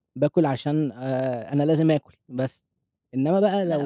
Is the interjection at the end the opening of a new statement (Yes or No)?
No